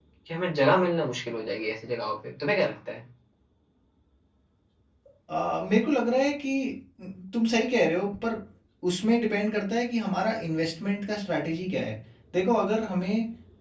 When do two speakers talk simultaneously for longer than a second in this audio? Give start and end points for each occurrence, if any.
none

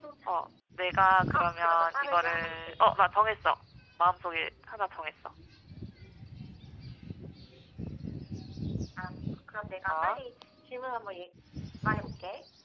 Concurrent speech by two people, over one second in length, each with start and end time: 1.3-3.0

